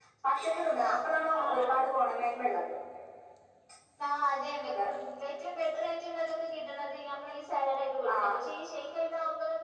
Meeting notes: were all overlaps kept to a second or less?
Yes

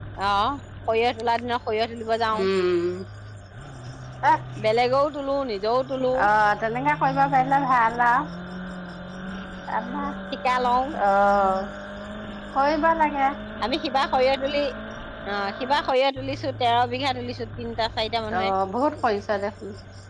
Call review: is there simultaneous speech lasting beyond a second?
No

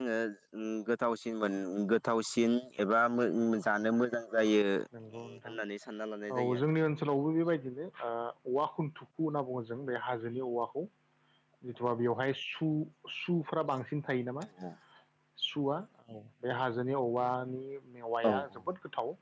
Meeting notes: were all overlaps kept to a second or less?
Yes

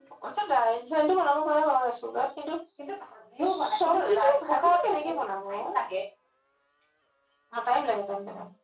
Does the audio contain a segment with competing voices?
Yes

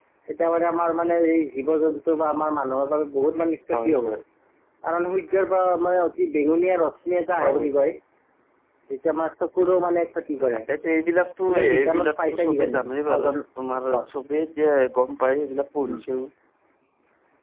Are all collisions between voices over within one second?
No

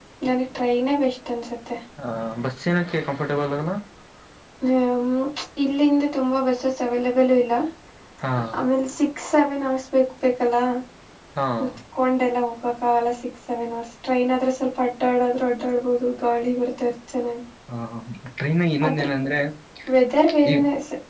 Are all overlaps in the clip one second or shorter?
Yes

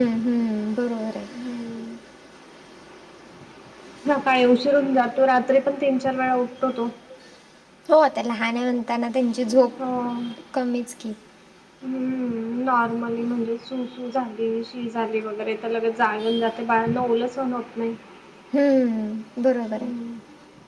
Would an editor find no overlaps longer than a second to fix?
Yes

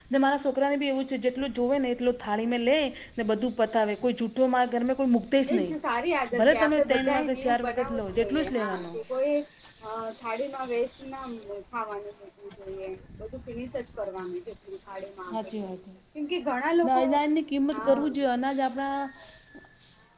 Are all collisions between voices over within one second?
No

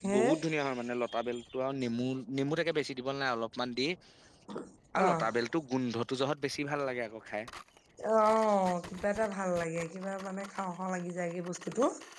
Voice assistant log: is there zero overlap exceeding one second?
Yes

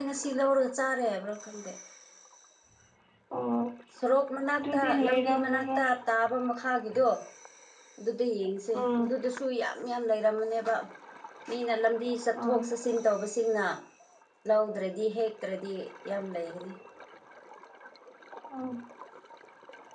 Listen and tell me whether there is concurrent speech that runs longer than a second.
Yes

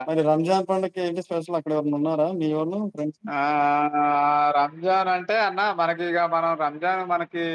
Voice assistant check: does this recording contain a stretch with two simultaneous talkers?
No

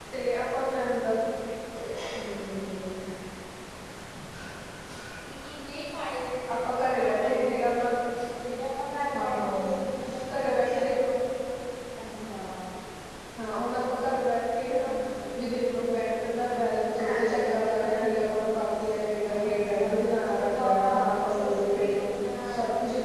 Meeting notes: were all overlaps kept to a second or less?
No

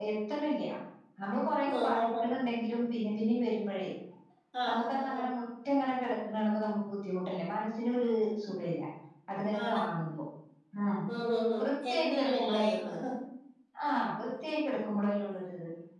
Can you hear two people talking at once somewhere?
Yes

